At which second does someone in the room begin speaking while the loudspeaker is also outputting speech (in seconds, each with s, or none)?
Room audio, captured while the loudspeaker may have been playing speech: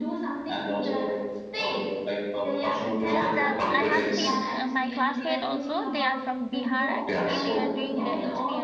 2.8 s